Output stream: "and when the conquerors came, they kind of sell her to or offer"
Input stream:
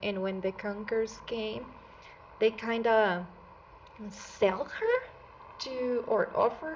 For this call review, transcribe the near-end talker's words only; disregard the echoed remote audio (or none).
none